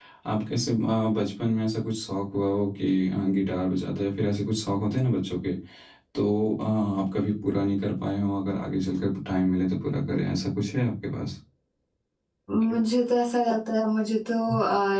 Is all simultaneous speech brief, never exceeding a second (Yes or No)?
Yes